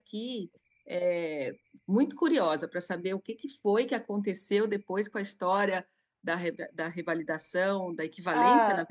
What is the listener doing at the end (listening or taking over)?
listening